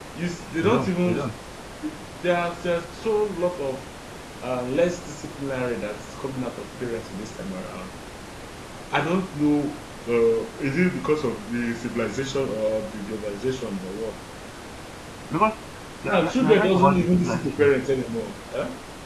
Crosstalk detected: Yes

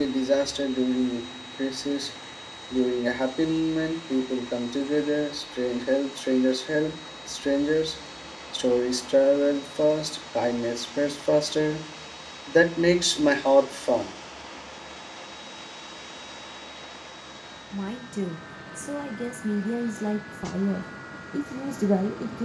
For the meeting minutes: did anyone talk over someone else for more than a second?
No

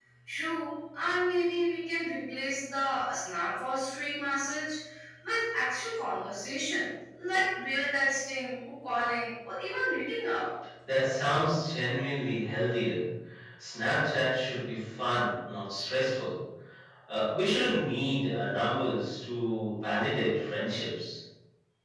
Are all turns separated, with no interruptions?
Yes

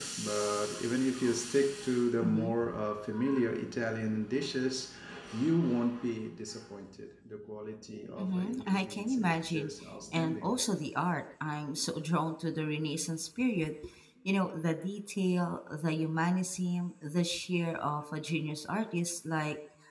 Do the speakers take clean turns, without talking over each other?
No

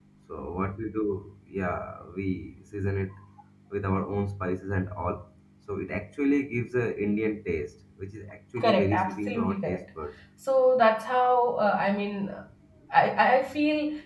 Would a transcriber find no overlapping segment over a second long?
No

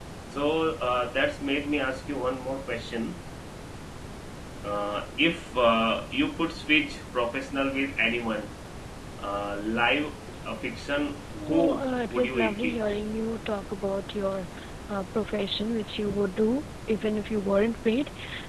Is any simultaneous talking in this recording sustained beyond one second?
Yes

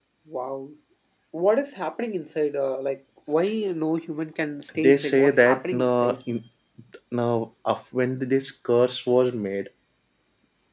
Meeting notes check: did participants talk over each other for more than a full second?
Yes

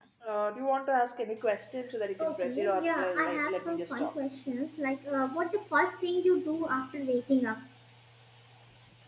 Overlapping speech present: Yes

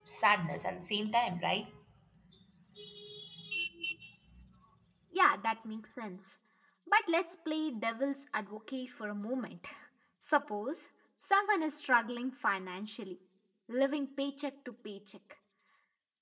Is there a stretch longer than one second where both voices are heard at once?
No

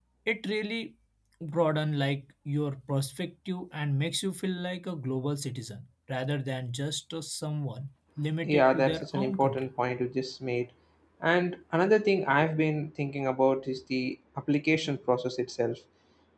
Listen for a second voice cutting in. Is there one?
Yes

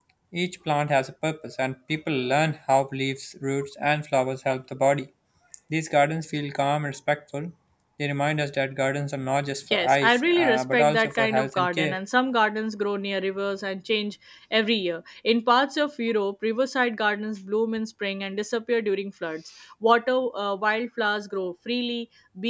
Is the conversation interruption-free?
No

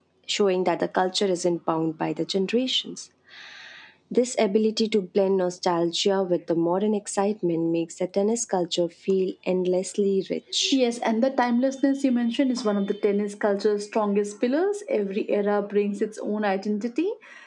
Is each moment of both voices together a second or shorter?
Yes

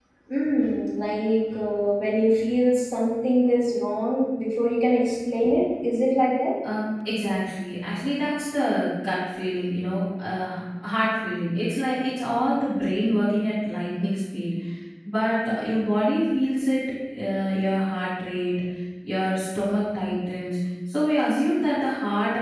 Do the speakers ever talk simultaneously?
No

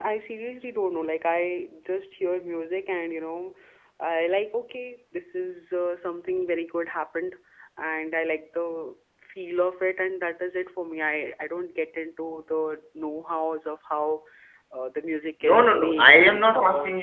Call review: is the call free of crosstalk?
No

